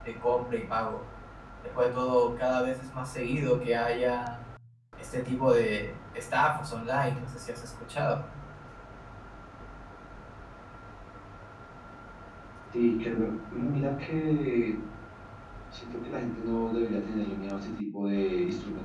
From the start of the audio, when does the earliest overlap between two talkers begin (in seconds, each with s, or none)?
none